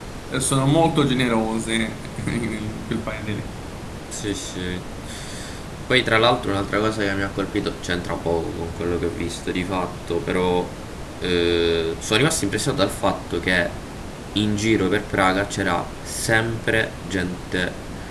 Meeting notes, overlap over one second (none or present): none